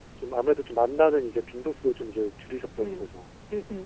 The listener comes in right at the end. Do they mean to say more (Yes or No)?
Yes